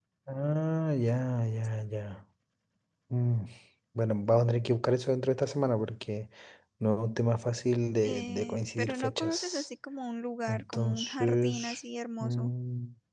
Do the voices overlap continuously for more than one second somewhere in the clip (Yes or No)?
Yes